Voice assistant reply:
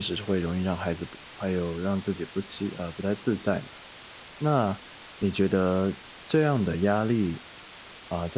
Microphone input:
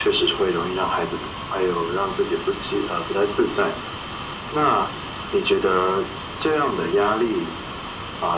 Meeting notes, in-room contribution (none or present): none